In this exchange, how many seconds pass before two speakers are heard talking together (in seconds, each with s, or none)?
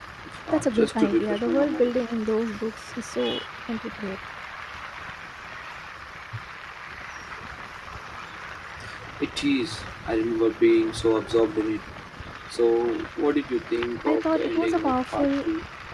0.5 s